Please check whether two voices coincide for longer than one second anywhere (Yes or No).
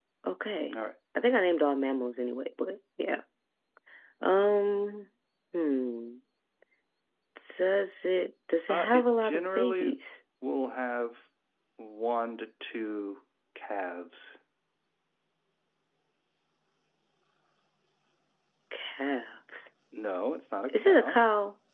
Yes